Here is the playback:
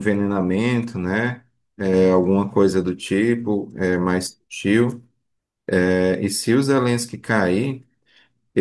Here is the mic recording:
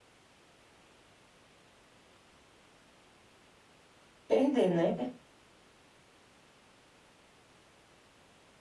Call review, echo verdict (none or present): none